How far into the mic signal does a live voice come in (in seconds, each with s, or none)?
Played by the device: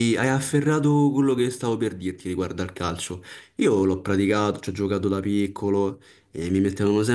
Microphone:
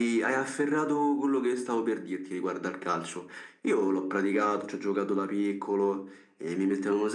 none